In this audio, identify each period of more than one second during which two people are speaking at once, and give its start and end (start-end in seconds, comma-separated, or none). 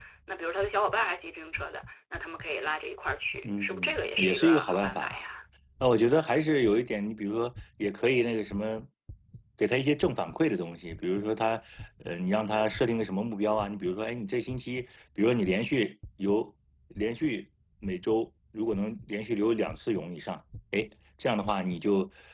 3.4-5.2